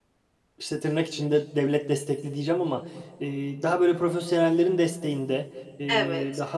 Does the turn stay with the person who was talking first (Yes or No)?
Yes